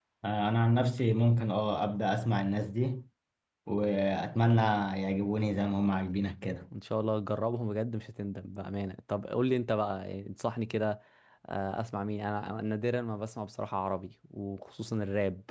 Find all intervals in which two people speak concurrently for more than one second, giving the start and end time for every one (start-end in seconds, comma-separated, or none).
none